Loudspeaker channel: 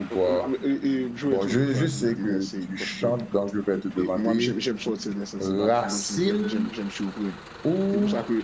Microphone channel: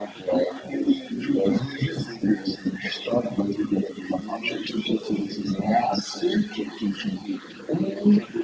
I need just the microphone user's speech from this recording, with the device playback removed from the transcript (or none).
none